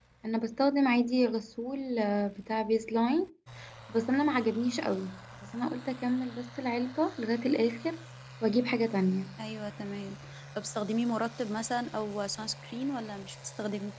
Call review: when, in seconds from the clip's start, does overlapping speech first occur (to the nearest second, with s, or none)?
none